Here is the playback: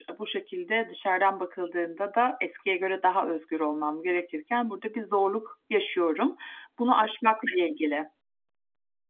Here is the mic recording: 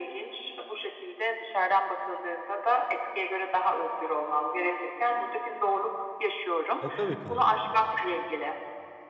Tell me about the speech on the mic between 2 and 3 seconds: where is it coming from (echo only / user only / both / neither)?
echo only